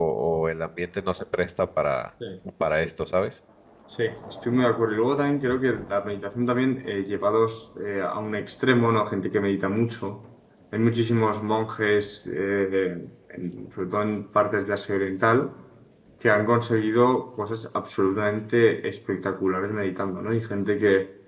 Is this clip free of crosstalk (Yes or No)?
Yes